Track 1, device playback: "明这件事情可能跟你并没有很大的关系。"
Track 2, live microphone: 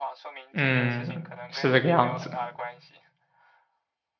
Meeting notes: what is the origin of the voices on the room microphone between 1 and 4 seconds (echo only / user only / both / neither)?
both